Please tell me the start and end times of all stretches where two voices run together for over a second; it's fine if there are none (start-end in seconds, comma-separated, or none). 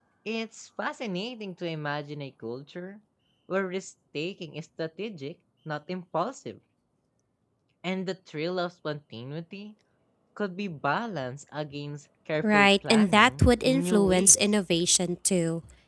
12.4-14.5